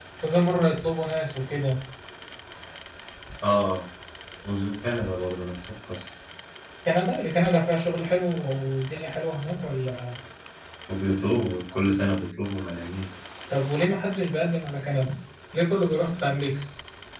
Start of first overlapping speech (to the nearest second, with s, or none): none